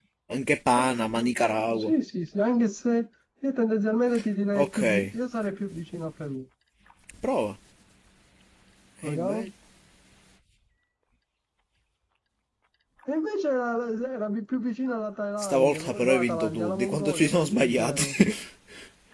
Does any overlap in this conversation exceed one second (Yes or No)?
Yes